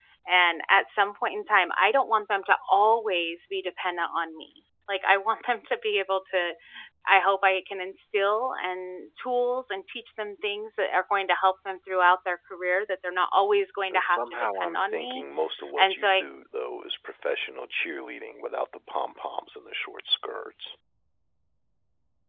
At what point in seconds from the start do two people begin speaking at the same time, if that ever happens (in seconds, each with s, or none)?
13.9 s